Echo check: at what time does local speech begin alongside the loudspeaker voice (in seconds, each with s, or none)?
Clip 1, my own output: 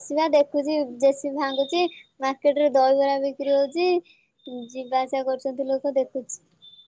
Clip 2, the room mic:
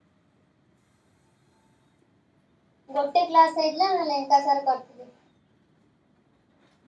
3.0 s